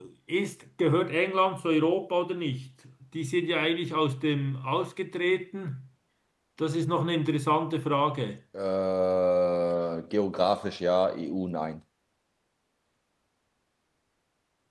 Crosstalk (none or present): none